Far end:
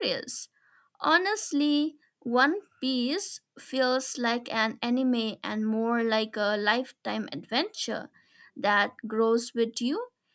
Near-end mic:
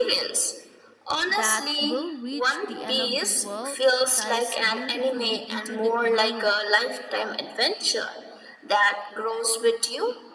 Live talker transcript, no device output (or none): that will reach the end of the world ties beautifully into the crew